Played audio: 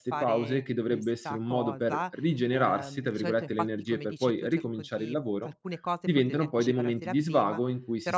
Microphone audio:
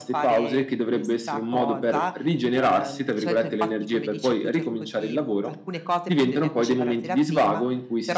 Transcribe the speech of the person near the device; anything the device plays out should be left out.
none

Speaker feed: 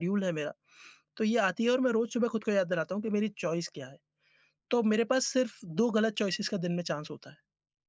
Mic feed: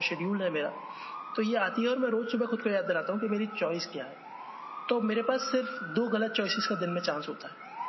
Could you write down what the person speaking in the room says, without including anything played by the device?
none

